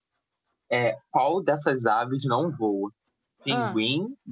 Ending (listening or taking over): listening